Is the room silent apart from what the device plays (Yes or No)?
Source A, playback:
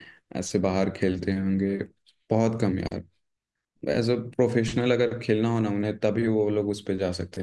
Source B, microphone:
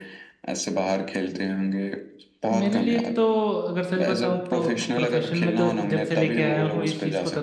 No